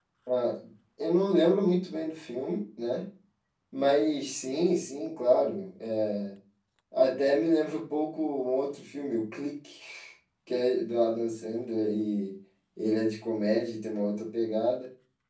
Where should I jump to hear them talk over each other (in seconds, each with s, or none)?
none